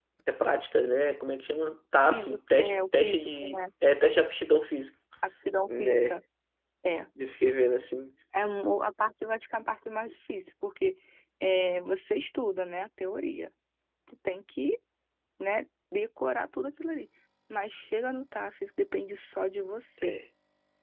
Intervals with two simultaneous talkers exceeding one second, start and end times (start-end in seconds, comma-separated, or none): 2.1-3.6